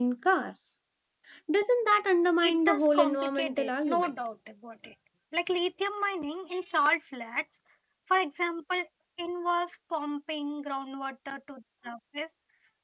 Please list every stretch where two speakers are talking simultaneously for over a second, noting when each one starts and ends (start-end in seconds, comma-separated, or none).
2.4-4.1